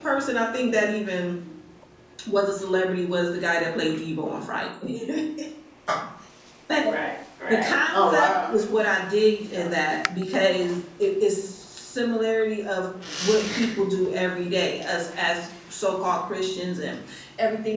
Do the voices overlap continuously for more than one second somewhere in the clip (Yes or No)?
Yes